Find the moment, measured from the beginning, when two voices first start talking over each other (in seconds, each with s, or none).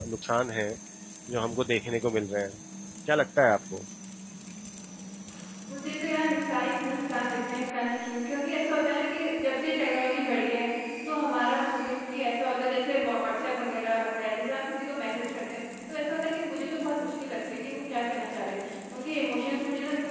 none